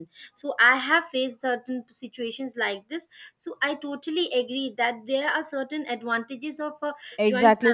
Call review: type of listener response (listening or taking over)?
taking over